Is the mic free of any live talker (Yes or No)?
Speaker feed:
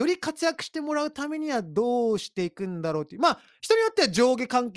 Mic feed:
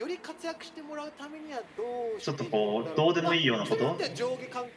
No